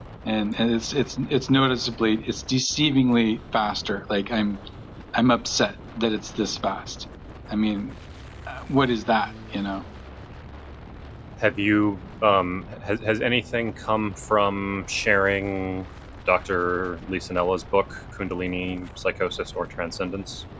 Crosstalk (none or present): none